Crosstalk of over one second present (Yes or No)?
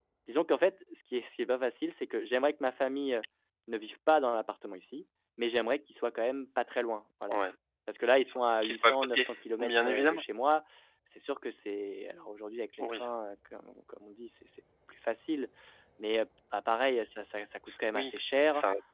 Yes